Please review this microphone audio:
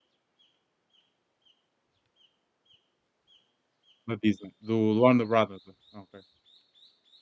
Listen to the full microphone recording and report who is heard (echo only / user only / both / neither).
user only